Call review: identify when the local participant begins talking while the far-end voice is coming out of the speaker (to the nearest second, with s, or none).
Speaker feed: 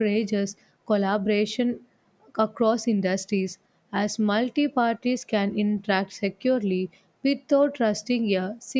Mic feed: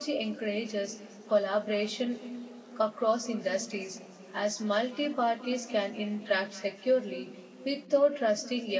none